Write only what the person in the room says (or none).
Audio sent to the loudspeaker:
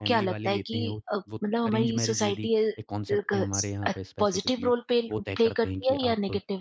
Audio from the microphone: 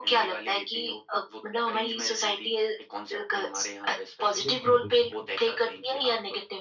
बिल्कुल, बिल्कुल।